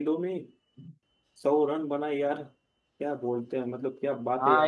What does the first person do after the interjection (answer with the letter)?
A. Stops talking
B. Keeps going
A